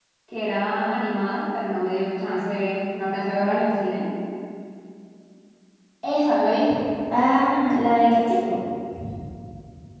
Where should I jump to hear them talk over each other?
none

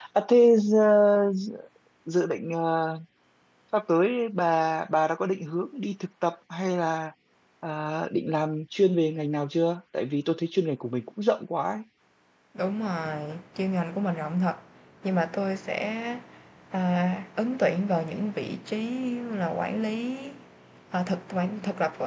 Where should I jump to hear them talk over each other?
none

